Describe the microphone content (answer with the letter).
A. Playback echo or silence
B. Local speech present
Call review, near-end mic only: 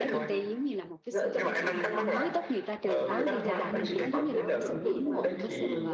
B